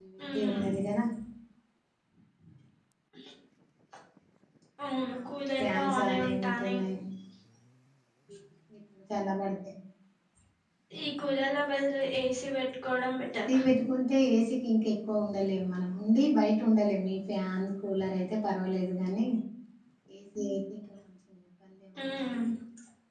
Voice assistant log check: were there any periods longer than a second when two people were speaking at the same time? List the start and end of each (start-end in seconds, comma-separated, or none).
5.6-6.8